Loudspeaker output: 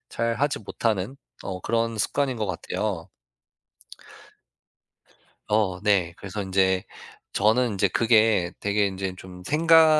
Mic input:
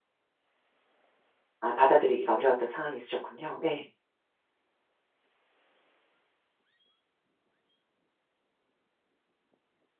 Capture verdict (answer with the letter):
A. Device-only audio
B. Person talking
B